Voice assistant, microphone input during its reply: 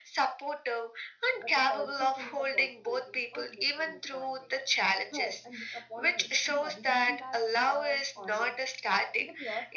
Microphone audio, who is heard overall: both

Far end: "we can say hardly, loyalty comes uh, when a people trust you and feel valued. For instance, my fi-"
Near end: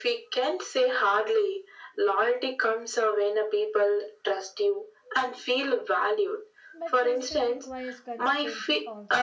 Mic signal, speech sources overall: both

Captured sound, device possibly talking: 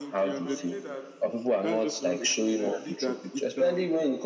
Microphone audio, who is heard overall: both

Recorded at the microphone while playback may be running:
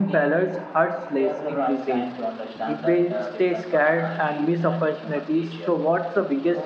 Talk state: both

